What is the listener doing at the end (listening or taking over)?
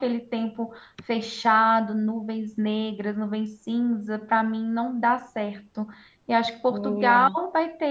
listening